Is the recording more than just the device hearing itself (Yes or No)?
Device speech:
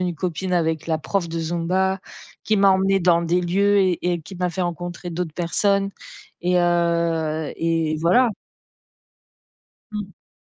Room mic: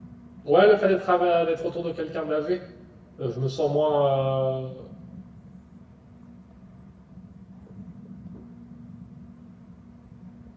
Yes